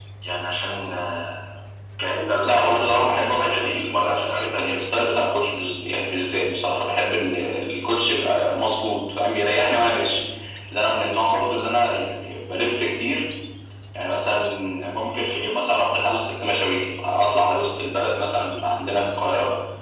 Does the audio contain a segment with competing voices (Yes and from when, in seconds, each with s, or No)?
Yes, from 2.4 s